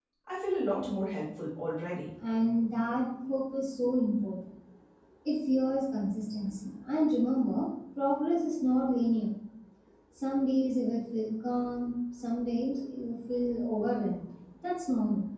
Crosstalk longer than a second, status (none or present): none